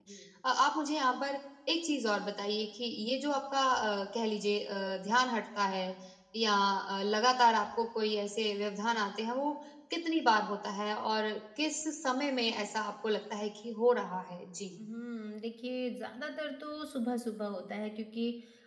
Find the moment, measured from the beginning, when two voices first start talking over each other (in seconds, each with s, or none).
none